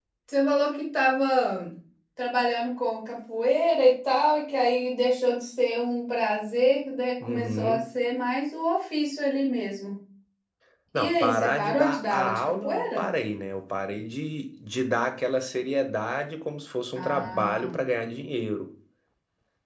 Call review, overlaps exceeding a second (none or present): present